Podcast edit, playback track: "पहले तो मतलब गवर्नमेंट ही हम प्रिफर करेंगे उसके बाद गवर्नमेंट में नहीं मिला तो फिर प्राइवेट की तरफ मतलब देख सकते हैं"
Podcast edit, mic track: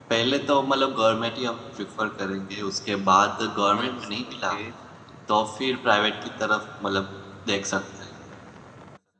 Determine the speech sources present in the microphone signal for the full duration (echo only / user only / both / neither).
both